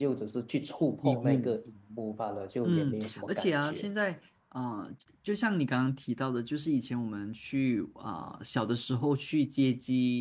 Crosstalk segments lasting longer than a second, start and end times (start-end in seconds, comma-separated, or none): 2.6-3.9